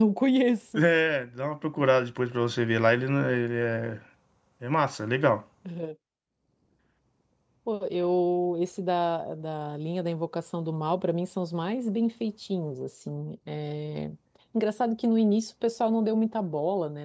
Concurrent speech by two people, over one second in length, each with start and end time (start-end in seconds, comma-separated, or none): none